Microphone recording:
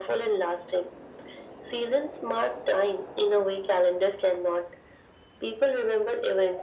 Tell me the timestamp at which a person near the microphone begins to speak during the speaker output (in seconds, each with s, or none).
none